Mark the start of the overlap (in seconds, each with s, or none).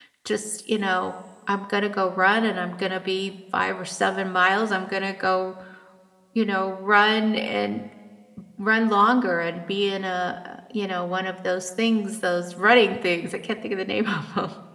none